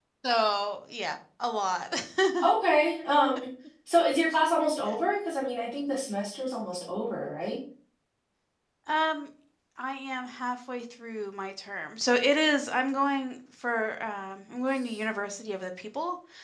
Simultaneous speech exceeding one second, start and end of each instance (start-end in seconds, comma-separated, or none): none